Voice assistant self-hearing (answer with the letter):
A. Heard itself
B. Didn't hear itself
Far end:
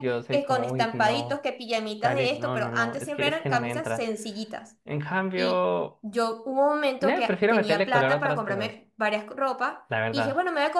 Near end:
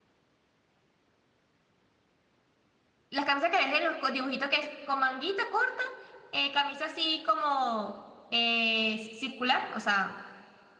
B